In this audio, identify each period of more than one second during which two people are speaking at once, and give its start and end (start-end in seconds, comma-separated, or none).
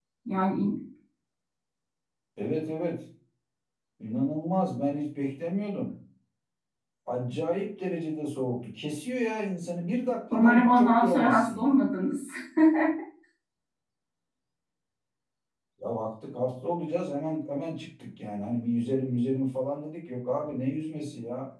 10.3-11.8